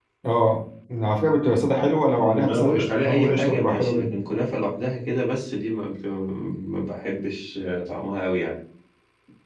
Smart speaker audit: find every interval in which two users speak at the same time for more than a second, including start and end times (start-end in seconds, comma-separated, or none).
2.1-4.2